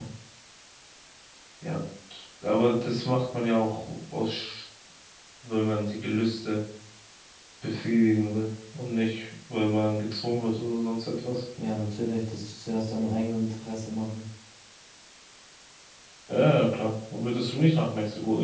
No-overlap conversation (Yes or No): Yes